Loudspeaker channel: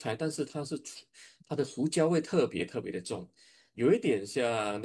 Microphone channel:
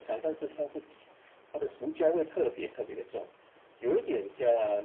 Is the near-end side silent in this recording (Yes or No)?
Yes